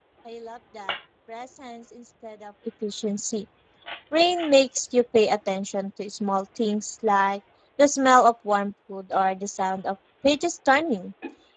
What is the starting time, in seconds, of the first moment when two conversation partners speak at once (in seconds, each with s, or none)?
none